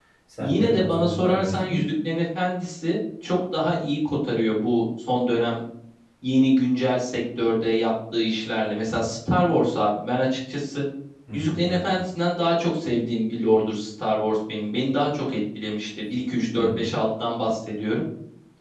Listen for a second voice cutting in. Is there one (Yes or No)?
Yes